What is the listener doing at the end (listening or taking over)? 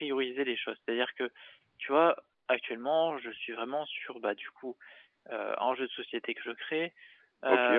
listening